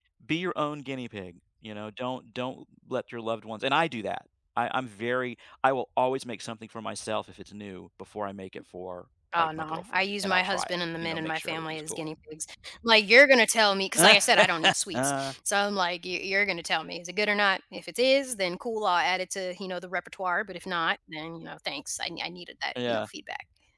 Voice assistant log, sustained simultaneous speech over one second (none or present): present